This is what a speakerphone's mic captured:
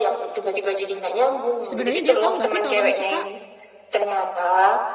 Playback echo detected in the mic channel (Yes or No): Yes